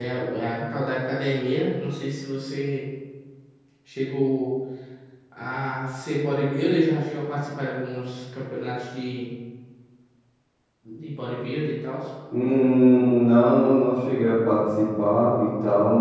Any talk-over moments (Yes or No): No